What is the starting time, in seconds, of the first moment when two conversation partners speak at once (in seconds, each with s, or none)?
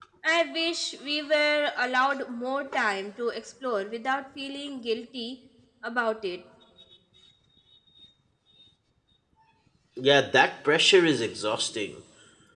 none